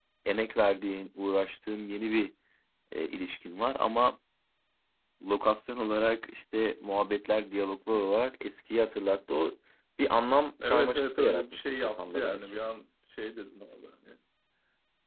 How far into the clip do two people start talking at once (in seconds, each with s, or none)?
10.6 s